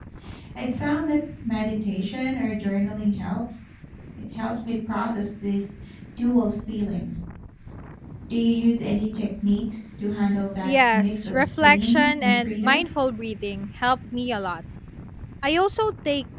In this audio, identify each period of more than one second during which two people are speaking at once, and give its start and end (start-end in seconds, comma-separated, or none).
10.6-12.8